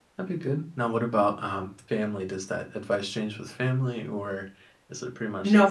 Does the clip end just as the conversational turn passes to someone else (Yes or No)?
Yes